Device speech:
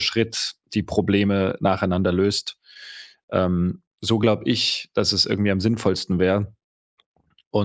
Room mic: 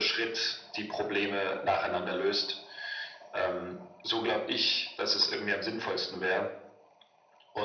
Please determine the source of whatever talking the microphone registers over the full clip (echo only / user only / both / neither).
echo only